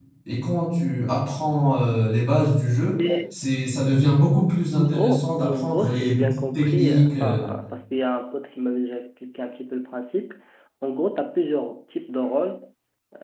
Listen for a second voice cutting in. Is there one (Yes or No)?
Yes